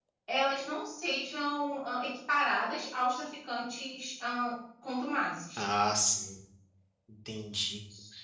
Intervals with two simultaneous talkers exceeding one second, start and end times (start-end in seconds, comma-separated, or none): none